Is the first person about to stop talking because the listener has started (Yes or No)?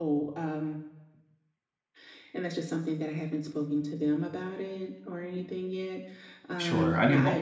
Yes